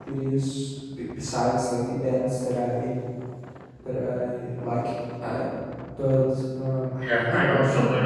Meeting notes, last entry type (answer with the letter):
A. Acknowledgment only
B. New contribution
B